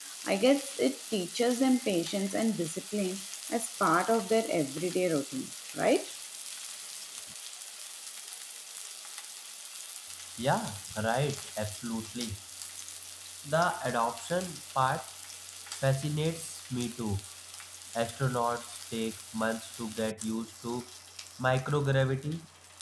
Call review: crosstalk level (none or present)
none